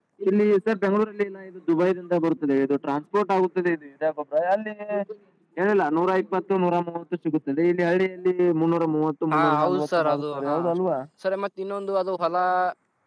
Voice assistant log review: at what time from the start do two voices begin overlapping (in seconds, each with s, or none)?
9.3 s